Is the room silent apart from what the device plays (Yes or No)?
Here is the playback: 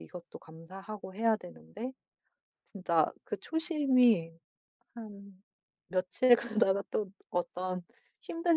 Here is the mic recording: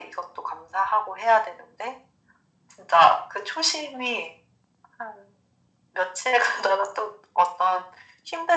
Yes